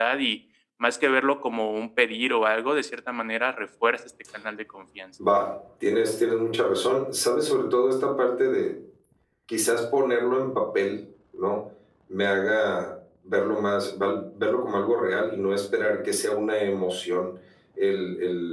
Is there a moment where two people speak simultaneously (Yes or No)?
No